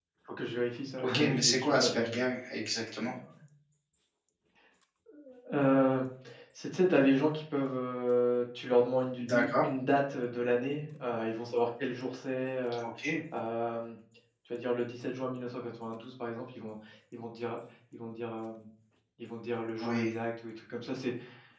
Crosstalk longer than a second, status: present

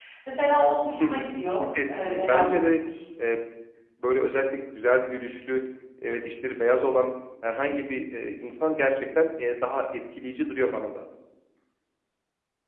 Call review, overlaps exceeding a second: present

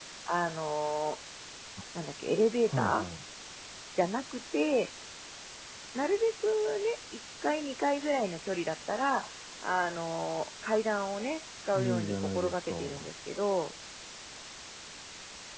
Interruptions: present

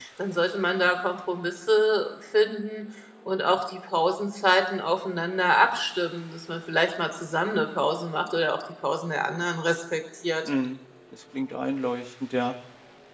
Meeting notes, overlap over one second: none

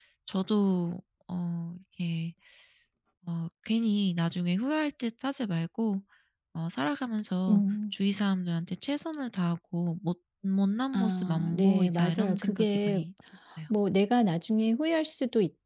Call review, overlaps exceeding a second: present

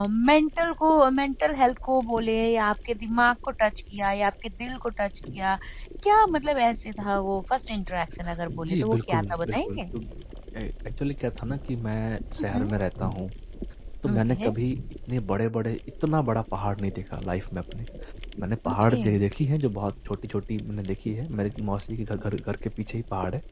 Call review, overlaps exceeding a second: present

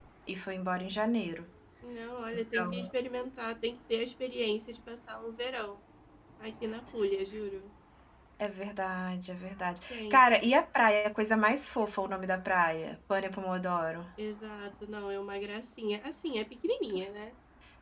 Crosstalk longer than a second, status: none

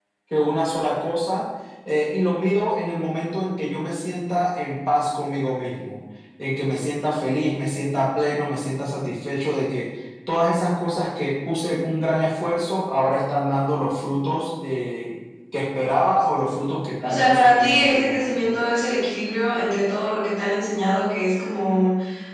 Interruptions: present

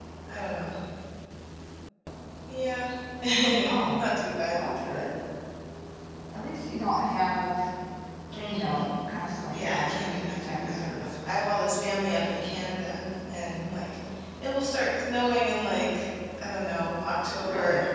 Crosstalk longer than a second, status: present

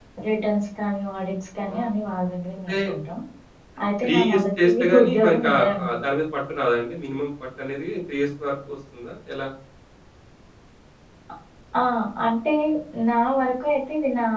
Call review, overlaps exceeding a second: present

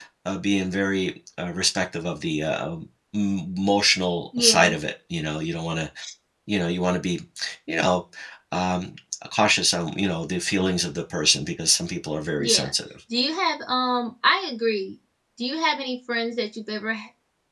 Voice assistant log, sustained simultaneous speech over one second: none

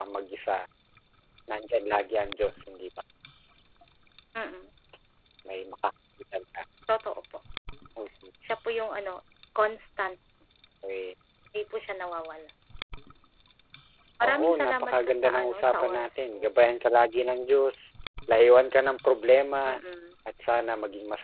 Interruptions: present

